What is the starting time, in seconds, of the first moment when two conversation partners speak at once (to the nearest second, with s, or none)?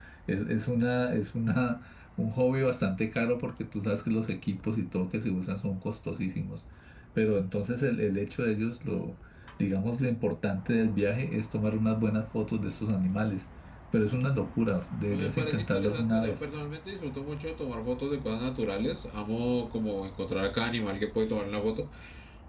15 s